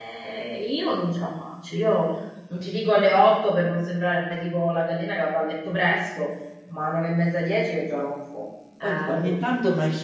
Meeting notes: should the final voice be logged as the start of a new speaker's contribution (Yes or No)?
Yes